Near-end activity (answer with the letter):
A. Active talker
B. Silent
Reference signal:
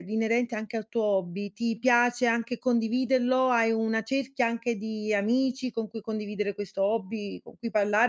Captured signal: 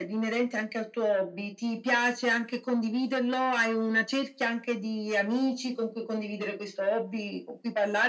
B